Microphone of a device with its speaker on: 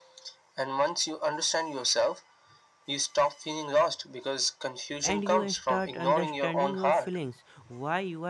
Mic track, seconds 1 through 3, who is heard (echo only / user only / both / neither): echo only